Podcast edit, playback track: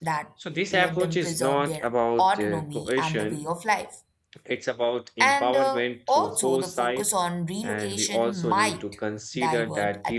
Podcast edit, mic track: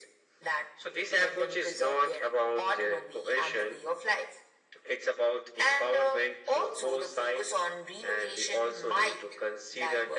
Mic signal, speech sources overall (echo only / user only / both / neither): echo only